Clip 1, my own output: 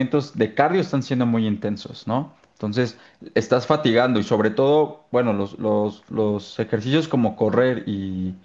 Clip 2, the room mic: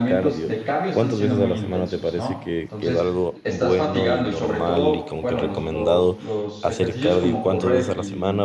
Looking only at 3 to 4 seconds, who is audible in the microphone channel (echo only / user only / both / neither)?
both